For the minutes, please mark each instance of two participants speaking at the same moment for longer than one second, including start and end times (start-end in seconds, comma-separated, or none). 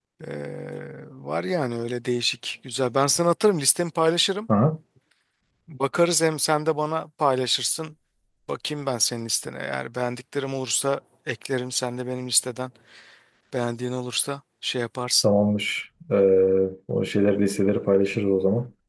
none